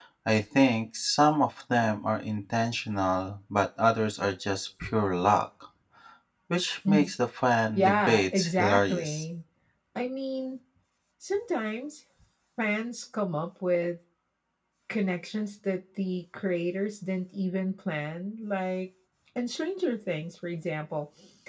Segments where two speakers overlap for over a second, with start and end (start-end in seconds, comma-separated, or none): 7.8-9.2